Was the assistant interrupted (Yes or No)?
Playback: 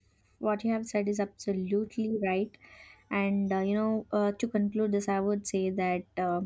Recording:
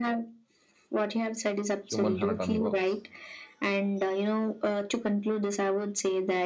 Yes